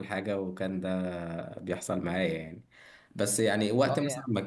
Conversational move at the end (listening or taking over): listening